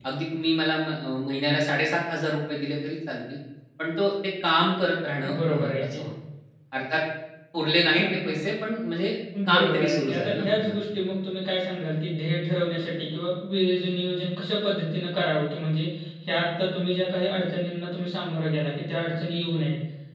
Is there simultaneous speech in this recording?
Yes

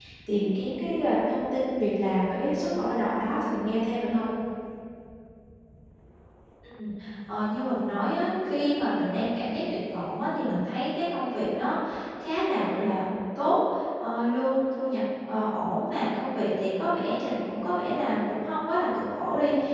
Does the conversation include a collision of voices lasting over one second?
No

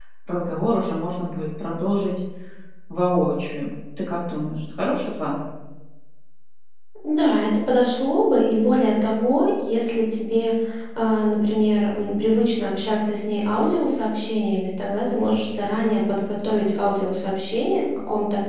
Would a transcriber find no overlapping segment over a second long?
Yes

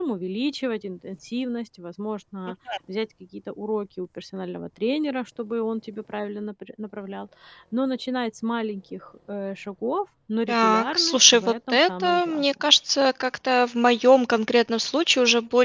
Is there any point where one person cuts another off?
Yes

